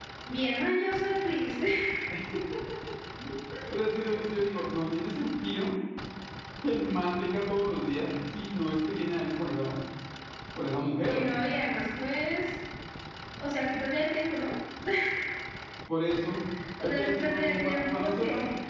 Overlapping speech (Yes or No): Yes